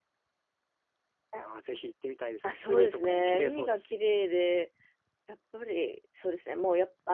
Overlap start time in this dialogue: 2.4 s

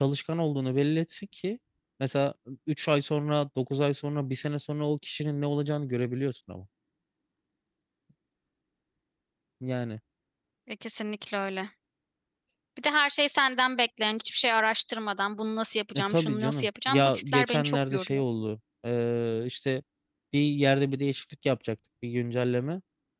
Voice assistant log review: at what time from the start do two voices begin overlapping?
16.0 s

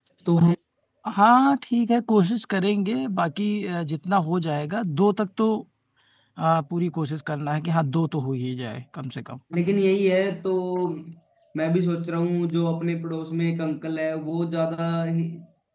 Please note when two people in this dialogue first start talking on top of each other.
none

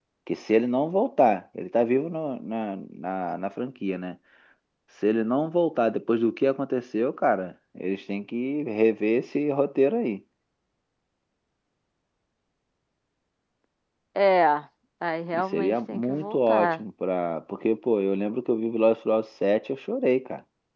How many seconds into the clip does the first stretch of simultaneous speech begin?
15.3 s

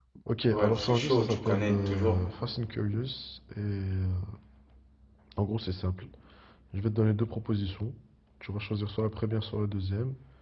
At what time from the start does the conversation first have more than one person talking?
0.5 s

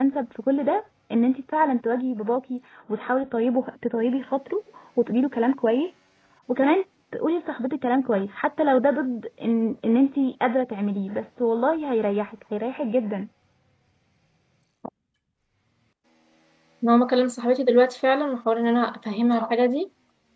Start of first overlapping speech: none

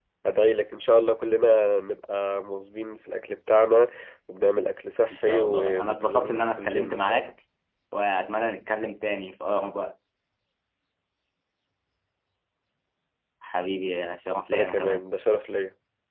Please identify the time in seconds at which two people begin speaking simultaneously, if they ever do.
5.1 s

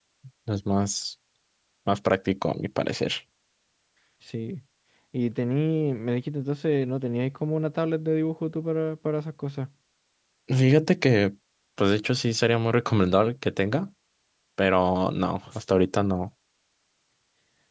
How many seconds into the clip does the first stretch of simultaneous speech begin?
none

